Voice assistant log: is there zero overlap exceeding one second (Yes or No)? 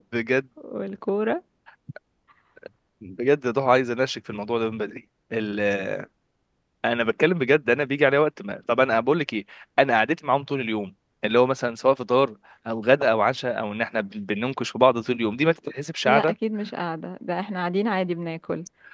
Yes